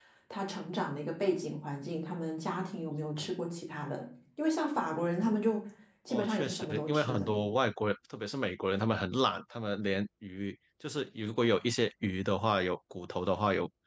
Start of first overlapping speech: 6.1 s

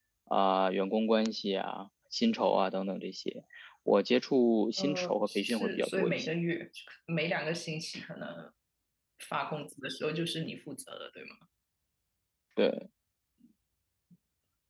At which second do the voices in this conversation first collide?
4.8 s

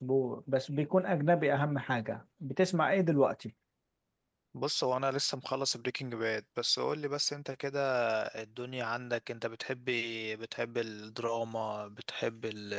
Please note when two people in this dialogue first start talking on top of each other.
none

